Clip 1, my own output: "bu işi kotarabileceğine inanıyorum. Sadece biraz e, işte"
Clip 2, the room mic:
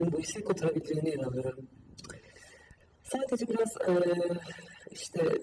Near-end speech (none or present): none